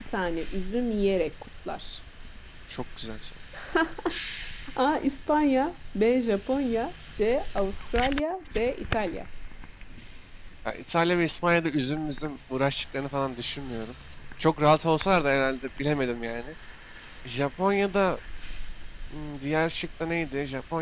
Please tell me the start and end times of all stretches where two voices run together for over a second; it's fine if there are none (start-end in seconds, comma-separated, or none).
none